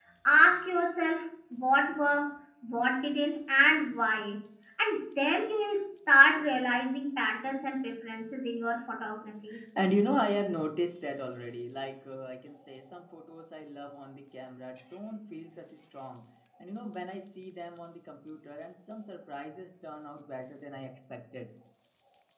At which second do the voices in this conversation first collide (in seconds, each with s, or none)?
none